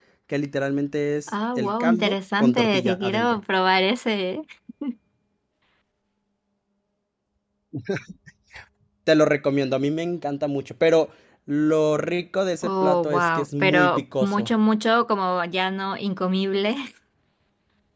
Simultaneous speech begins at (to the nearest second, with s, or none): 1 s